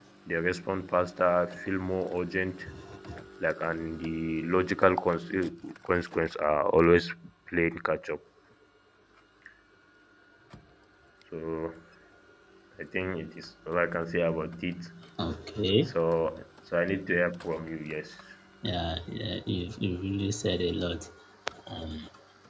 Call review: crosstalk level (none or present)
none